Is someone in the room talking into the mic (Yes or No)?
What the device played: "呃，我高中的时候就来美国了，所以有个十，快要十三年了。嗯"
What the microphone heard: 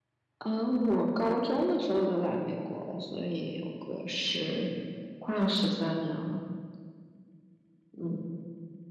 No